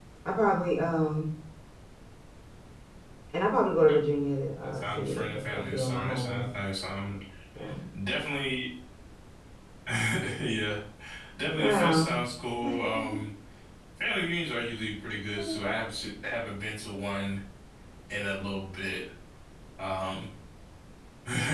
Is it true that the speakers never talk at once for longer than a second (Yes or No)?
No